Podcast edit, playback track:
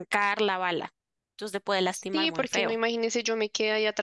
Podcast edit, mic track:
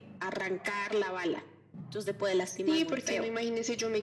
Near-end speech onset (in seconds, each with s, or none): none